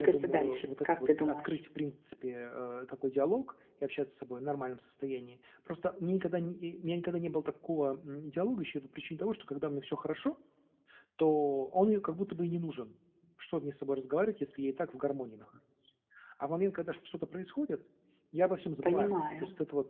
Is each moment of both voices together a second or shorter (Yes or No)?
No